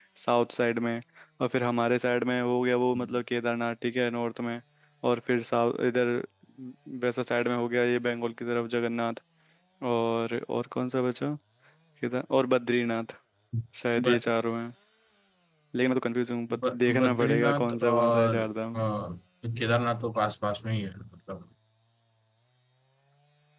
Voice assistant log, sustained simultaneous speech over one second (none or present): present